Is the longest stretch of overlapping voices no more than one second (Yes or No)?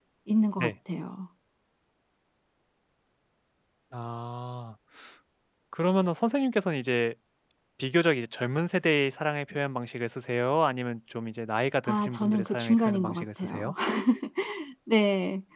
No